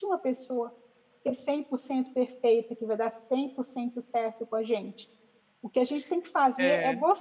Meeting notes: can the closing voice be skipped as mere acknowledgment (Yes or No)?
Yes